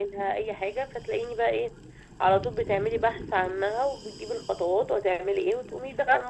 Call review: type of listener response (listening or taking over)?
taking over